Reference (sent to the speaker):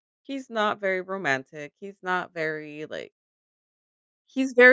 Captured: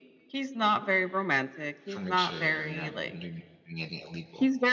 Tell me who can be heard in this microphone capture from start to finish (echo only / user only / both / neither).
both